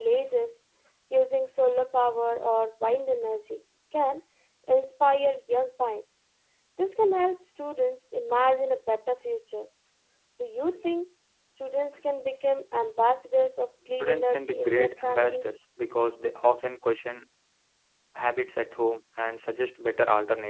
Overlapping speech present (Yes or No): Yes